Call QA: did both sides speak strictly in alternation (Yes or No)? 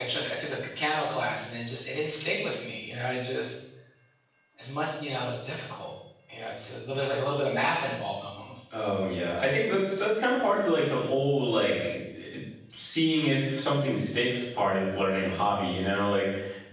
Yes